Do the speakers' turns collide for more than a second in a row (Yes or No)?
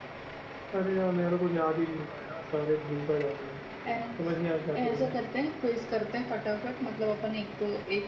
No